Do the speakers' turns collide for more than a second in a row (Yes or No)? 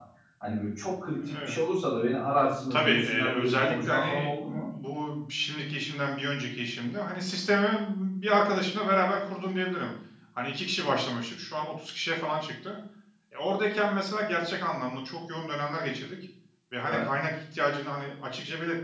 Yes